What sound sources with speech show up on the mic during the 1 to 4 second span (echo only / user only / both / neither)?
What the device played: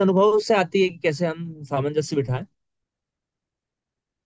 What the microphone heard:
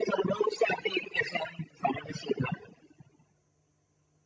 echo only